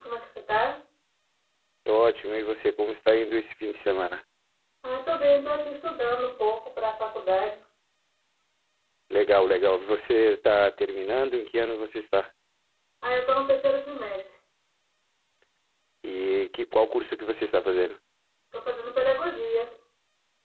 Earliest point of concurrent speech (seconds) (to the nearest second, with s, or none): none